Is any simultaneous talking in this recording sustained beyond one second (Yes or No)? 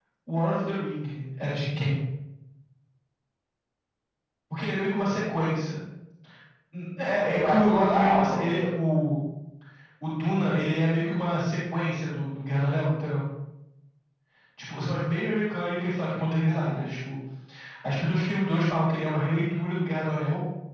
Yes